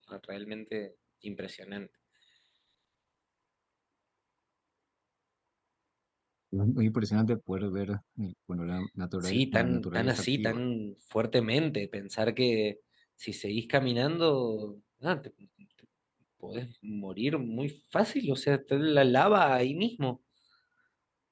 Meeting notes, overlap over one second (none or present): present